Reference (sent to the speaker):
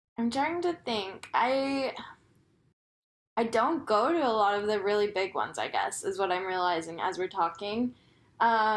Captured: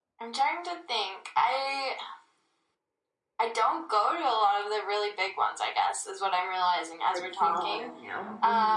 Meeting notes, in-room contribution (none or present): present